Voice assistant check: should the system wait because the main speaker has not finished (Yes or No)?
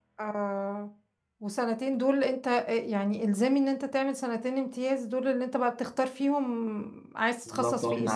No